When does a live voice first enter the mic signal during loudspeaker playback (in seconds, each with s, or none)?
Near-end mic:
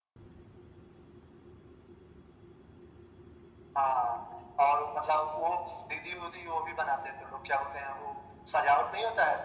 none